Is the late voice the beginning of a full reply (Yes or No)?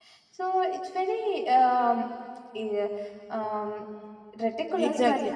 Yes